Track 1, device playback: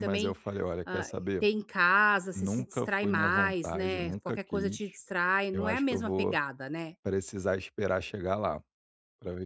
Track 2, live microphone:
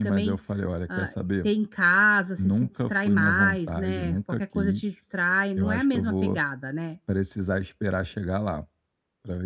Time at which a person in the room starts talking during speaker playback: none

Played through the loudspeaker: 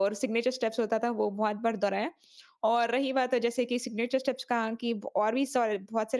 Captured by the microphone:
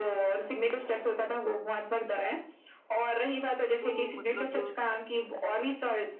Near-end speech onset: 3.8 s

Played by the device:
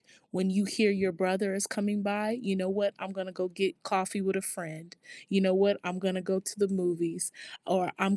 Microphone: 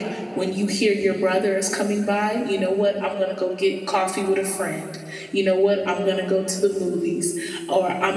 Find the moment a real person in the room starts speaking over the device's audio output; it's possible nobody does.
none

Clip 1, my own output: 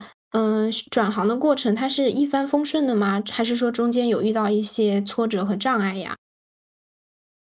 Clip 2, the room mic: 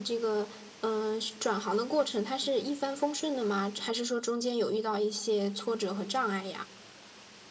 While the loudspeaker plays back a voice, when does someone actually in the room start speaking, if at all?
none

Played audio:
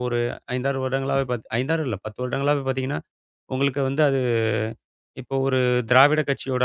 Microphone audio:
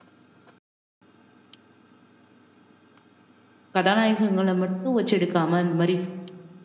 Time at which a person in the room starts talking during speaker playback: 3.8 s

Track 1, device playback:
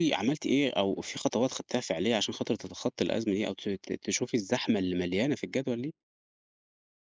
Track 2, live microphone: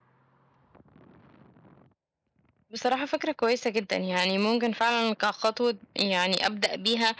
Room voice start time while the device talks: 2.7 s

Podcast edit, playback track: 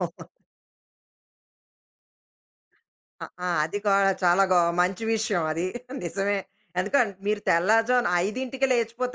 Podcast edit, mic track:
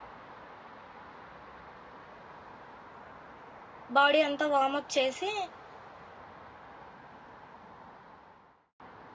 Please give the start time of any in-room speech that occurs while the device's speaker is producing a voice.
4.0 s

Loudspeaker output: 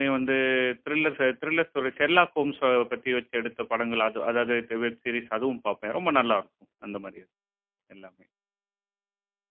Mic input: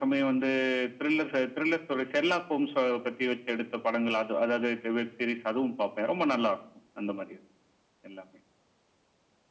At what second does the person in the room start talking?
none

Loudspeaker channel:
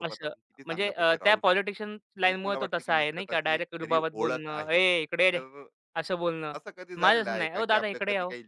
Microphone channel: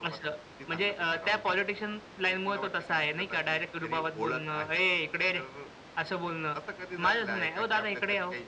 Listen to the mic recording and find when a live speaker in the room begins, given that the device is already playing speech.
none

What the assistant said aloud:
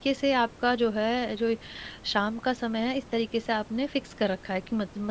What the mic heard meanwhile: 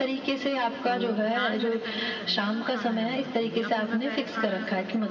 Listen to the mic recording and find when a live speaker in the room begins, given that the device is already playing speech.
0.8 s

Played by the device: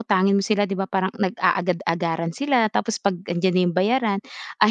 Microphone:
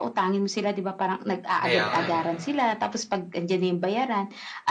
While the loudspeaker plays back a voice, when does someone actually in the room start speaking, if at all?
1.6 s

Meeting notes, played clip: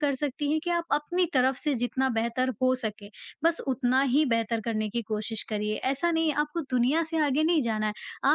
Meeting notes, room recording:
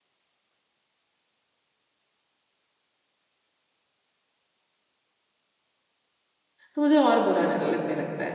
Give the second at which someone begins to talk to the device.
6.7 s

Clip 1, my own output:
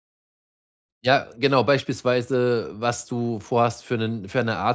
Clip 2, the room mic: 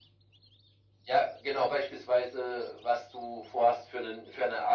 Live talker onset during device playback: none

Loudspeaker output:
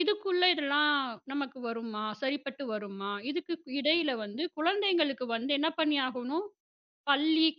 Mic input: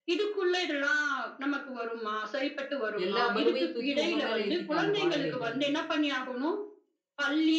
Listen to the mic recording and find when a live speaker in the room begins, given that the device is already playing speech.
3.0 s

